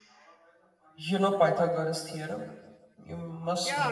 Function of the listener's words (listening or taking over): taking over